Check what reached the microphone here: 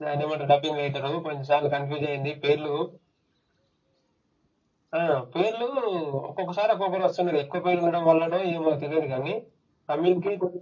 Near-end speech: none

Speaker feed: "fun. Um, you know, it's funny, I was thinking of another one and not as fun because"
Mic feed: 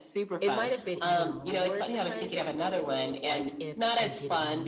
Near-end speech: present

